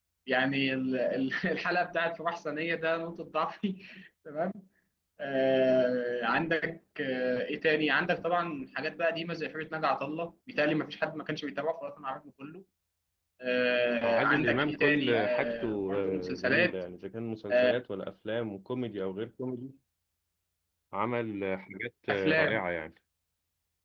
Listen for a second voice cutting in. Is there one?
Yes, from 14.0 s

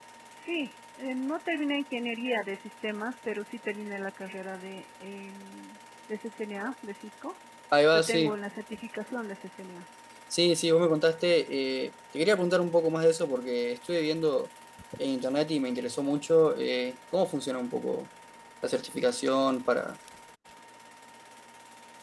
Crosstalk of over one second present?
No

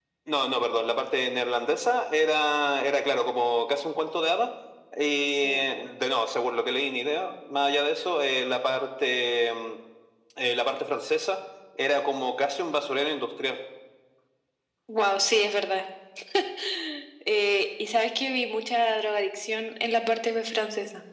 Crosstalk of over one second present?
No

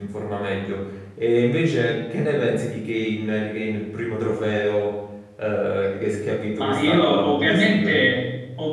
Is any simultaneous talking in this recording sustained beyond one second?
Yes, from 6.6 s

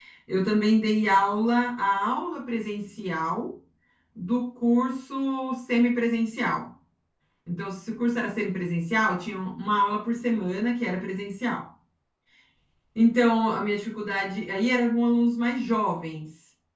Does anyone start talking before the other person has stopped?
No

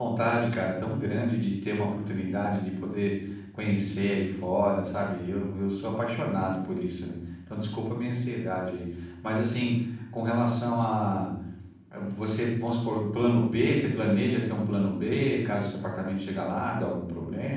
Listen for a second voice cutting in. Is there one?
No

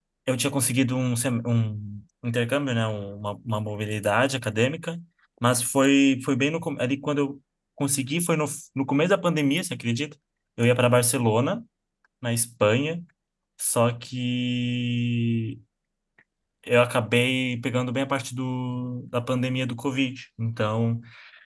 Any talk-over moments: No

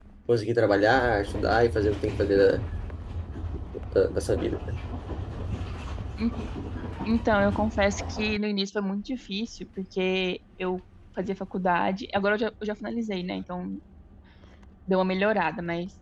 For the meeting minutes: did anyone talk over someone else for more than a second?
No

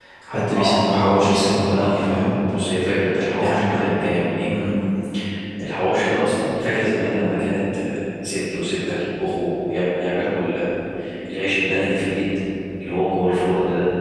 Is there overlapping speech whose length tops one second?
Yes, from 0.6 s

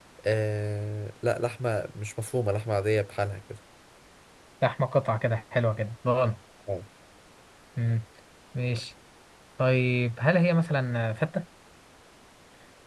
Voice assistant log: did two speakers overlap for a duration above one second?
No

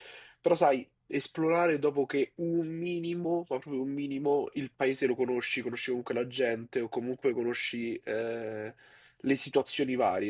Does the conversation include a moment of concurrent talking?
No

